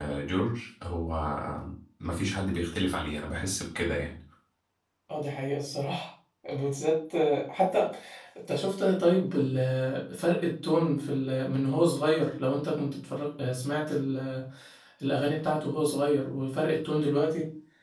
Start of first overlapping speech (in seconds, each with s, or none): none